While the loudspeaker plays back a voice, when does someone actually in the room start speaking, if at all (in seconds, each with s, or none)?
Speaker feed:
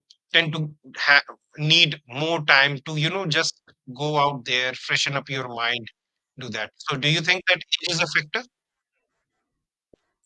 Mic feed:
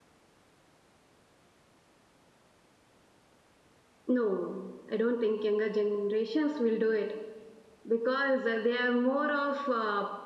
4.1 s